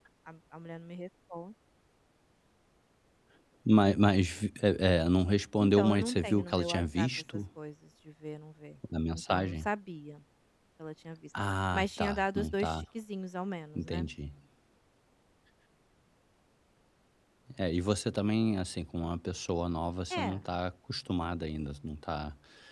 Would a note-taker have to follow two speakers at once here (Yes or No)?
Yes